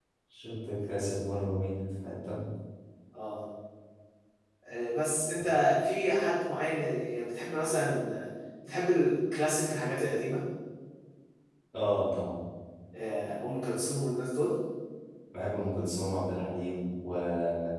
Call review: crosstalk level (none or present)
none